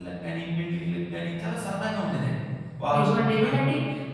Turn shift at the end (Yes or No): Yes